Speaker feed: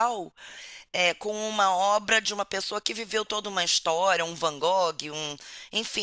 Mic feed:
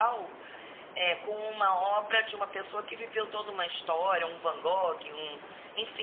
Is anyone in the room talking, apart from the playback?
No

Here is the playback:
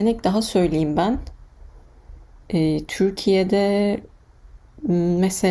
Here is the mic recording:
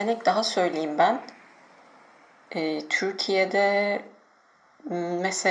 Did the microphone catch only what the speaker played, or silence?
Yes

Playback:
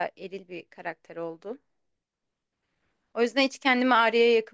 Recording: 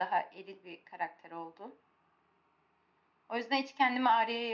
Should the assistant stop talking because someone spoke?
No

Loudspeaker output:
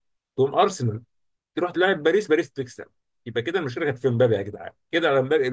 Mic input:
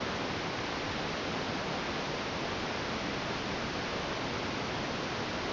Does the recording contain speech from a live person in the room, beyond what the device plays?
No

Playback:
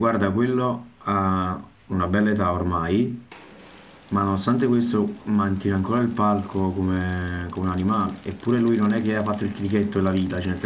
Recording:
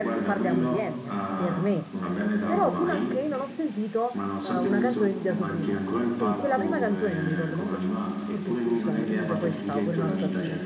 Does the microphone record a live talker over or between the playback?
Yes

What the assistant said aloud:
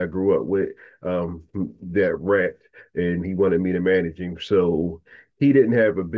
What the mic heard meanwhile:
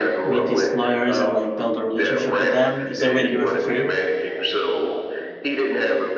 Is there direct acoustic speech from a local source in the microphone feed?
Yes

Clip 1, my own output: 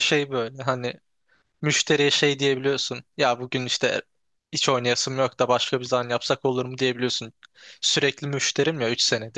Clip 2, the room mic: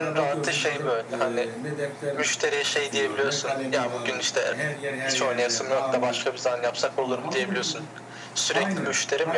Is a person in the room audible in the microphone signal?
Yes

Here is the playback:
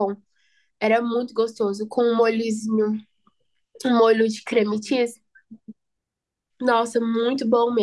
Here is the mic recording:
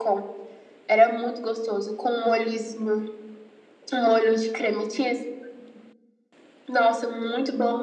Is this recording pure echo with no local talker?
Yes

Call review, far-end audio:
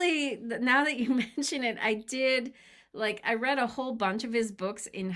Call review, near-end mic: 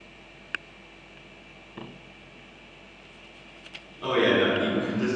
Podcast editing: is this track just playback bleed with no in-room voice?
No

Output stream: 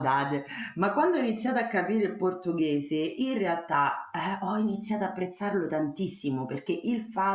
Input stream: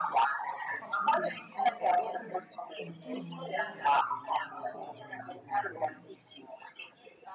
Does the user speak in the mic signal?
Yes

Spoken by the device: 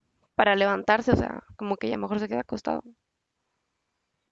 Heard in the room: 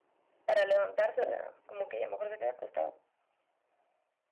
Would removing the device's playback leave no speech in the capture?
Yes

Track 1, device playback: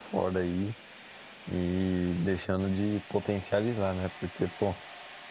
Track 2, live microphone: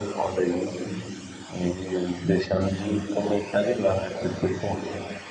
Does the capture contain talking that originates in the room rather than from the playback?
No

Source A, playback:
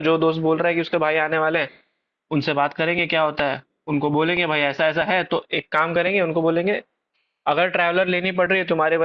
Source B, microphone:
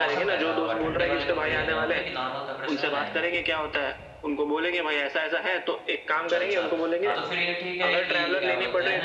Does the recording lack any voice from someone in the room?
No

